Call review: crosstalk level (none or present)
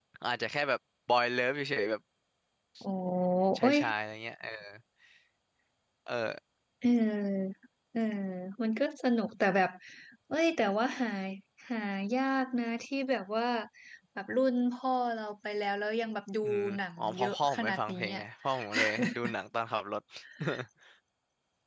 present